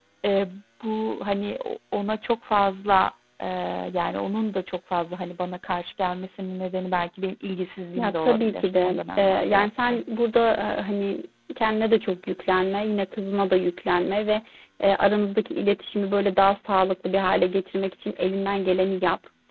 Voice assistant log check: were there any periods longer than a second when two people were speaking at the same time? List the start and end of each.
8.0-10.0

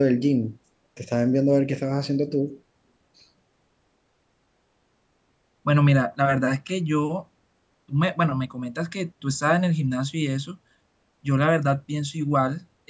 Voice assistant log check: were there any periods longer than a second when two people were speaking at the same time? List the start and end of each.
none

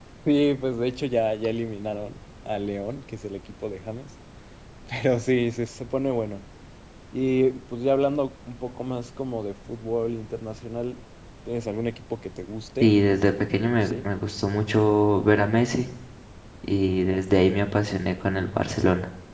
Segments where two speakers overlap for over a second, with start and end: none

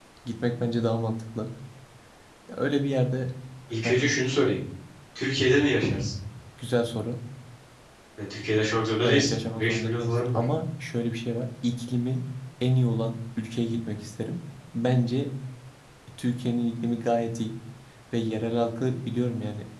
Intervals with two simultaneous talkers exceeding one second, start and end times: 9.0-10.5

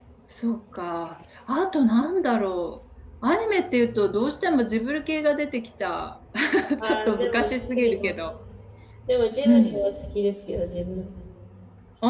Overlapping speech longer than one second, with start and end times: 6.8-8.1

